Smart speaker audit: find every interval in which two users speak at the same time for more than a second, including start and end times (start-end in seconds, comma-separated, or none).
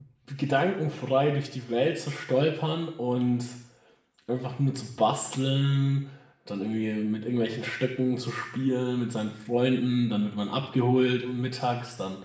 none